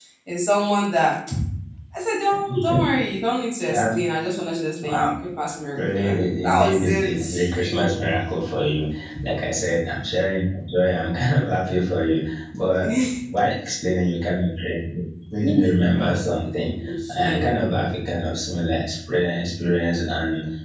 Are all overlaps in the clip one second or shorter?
No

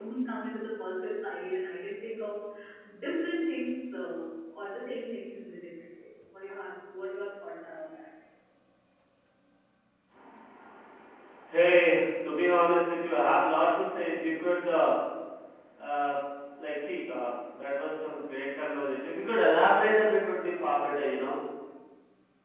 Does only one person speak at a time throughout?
Yes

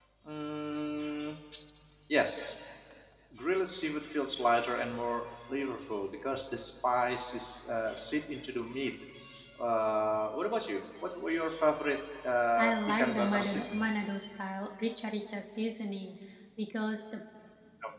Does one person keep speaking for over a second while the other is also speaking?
Yes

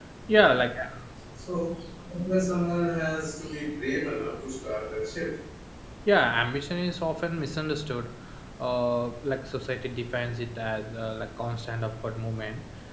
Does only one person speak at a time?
Yes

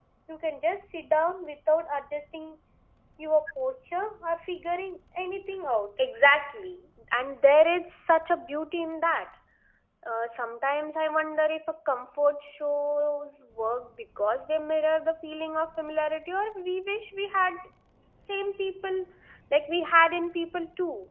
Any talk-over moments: No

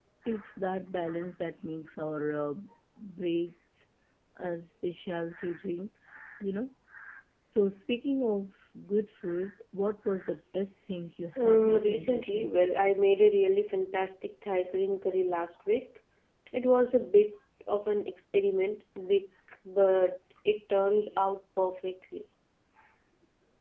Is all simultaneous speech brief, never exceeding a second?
No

